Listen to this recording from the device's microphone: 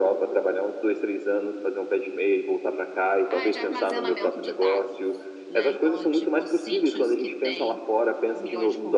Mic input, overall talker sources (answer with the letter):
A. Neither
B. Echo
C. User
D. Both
D